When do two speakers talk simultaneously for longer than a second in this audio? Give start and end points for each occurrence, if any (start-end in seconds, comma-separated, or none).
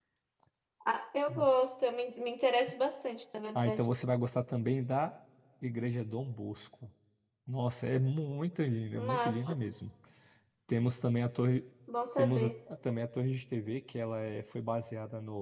none